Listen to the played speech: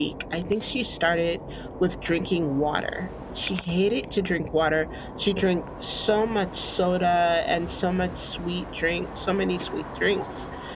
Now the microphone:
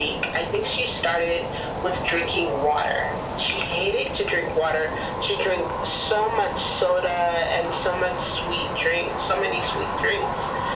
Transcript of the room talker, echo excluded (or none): none